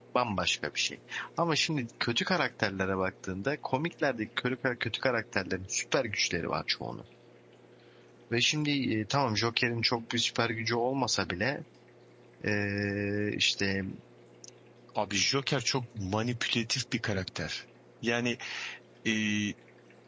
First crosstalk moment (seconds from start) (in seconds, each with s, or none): none